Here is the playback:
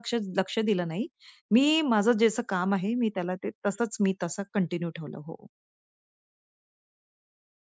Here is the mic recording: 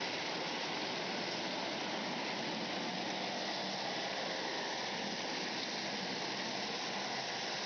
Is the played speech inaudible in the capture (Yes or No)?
Yes